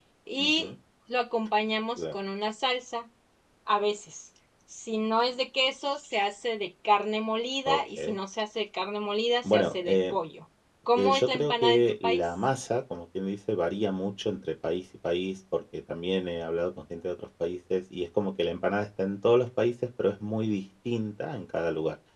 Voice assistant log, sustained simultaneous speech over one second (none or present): present